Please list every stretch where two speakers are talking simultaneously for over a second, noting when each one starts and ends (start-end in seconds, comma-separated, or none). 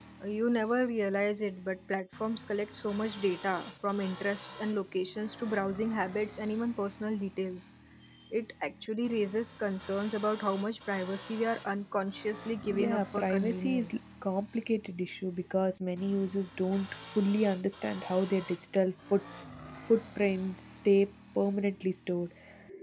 12.6-14.0